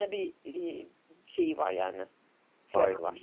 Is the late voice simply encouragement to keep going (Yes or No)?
No